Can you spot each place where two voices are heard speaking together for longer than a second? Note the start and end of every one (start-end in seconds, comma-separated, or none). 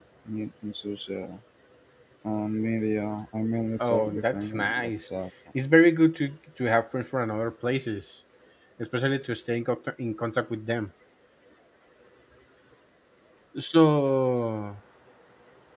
3.8-5.0